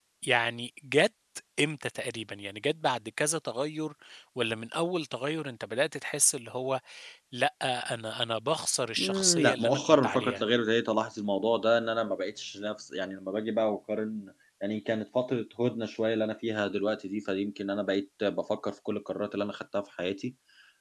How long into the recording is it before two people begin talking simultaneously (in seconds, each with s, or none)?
9.0 s